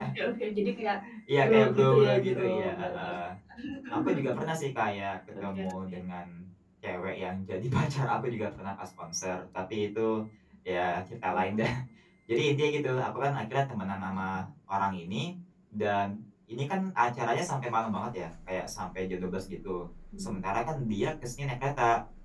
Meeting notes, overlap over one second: present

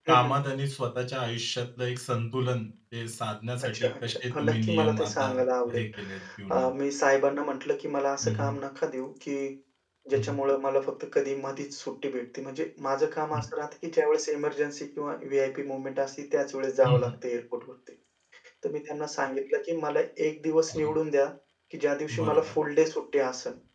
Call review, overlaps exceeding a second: present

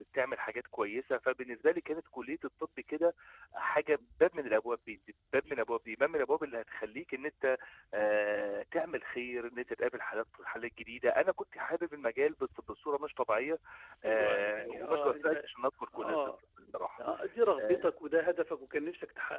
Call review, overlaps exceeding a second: present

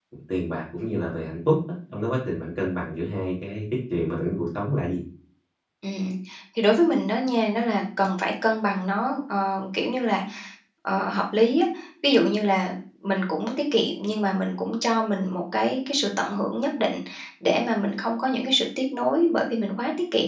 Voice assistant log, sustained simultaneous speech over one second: none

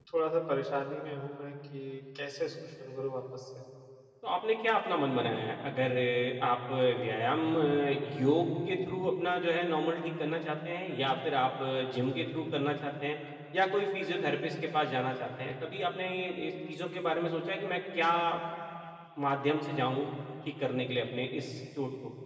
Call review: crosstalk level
none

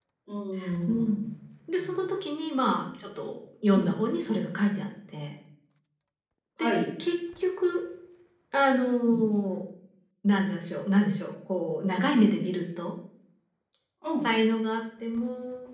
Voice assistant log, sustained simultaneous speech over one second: none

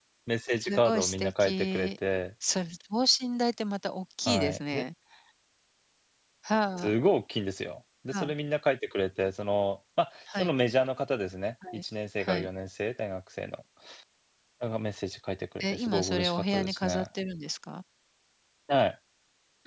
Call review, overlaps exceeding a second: present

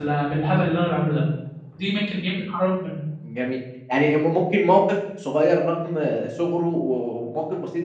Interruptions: none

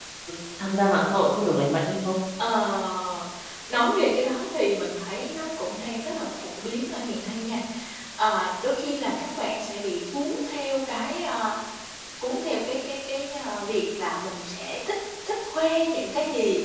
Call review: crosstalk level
none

